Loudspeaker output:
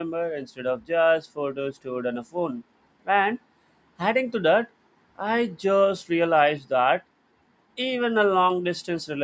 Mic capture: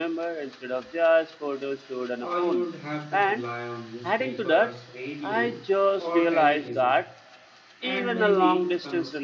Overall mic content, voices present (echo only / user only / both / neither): both